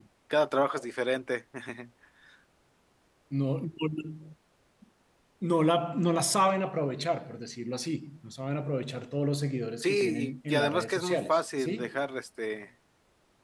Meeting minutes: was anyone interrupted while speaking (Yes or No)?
Yes